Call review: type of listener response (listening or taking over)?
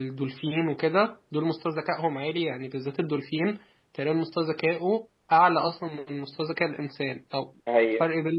listening